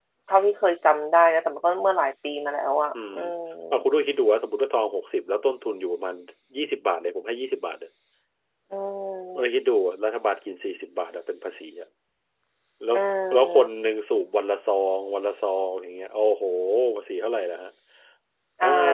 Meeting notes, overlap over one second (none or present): none